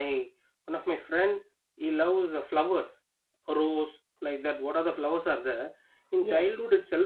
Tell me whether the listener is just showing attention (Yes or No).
Yes